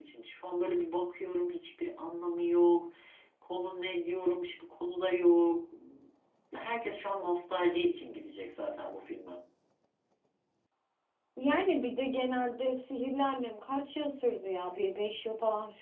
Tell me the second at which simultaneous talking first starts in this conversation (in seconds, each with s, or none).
none